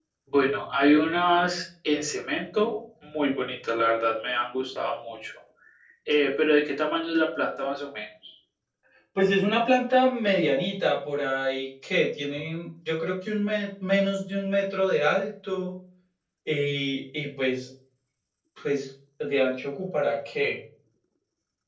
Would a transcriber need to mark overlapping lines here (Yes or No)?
No